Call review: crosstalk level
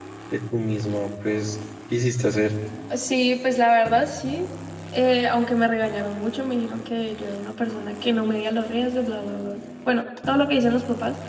none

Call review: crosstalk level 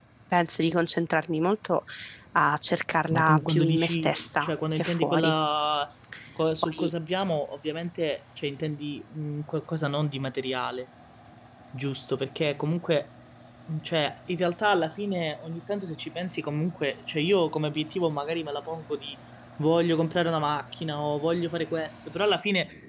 present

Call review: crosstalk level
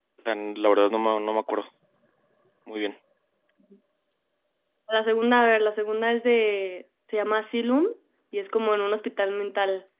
none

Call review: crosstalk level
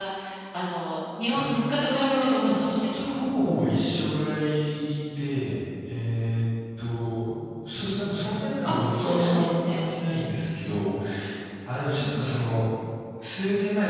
present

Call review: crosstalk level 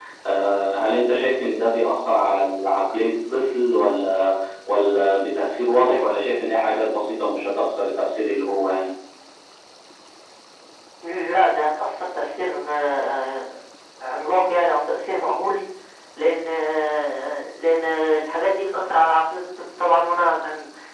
none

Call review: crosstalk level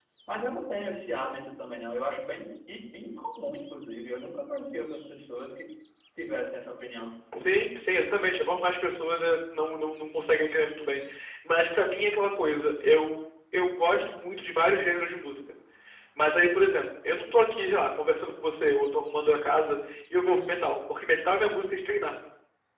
none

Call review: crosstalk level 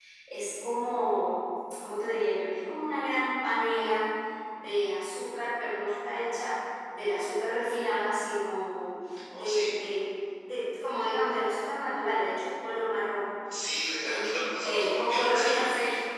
present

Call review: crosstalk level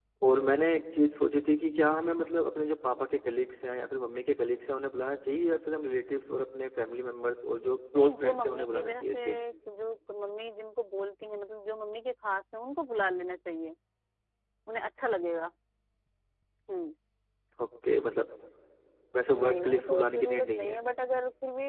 present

